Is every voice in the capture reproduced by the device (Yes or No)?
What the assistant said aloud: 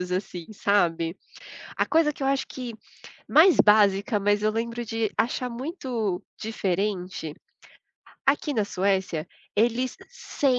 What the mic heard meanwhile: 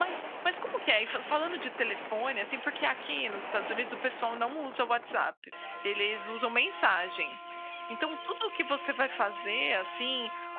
No